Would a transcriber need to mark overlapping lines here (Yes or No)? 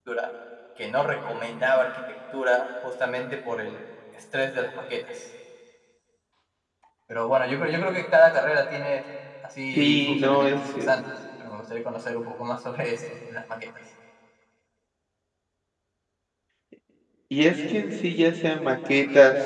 Yes